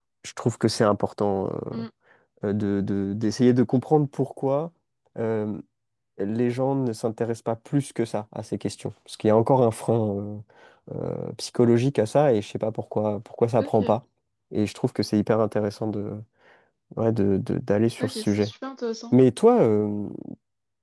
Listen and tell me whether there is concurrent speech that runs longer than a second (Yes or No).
No